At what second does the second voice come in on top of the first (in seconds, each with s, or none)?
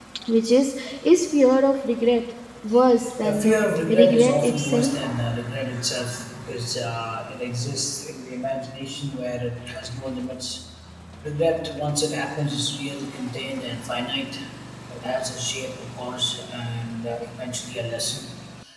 3.2 s